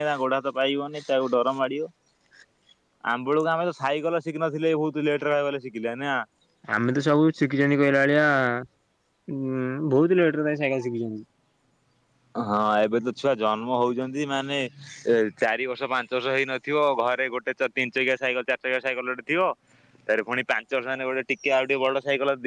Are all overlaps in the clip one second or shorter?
Yes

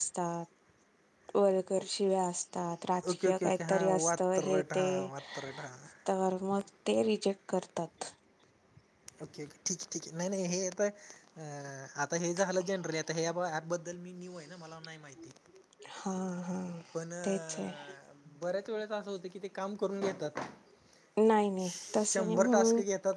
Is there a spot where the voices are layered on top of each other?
Yes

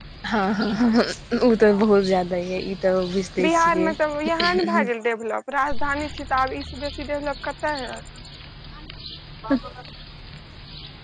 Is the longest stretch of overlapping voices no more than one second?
Yes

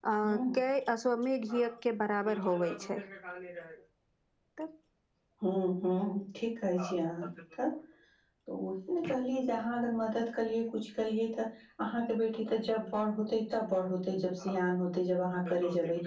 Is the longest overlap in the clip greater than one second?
No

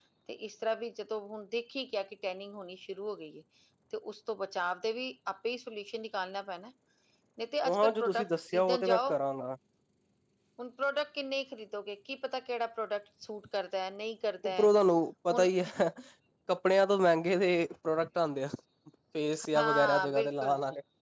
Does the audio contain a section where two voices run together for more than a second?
Yes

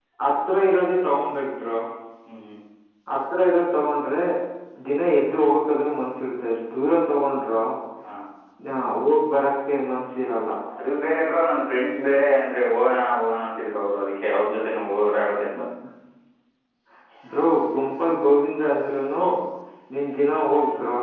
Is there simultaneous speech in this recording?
No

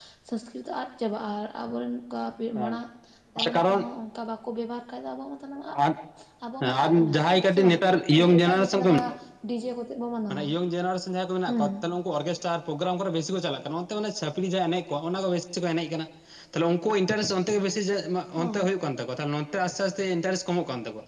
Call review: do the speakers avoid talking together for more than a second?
No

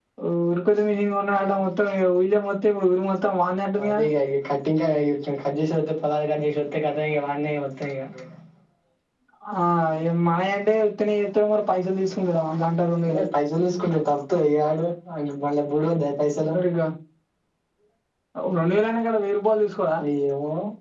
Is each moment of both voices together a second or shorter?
Yes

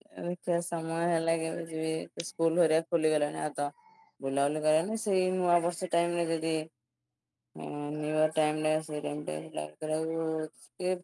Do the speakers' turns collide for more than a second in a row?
No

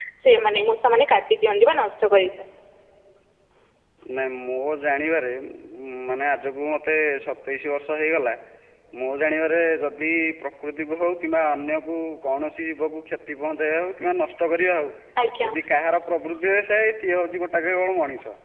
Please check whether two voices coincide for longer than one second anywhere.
No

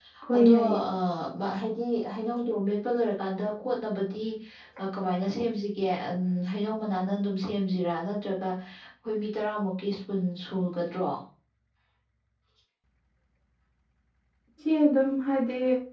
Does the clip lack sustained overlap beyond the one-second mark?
Yes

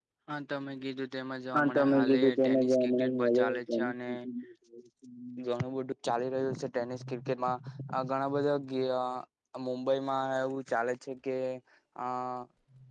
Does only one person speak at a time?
No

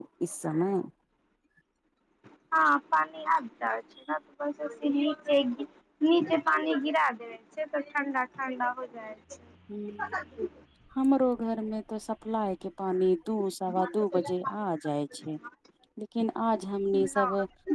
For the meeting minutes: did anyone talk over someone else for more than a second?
No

